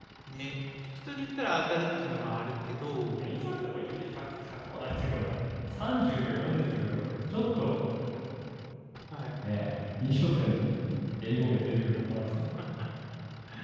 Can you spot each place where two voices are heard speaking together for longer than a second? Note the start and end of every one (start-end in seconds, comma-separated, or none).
none